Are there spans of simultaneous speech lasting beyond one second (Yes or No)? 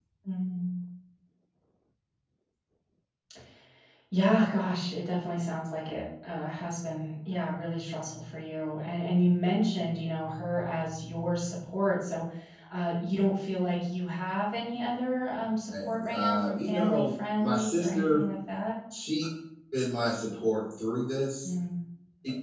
Yes